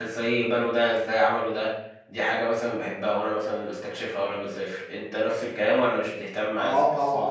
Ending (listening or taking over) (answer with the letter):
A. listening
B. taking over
B